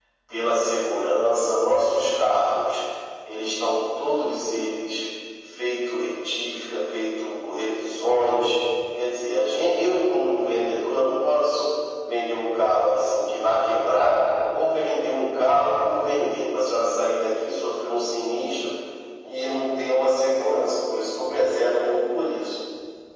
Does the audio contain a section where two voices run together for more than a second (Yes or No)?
No